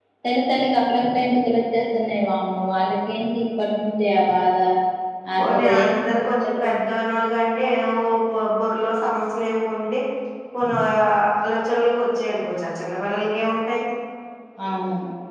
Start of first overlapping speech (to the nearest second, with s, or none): 5 s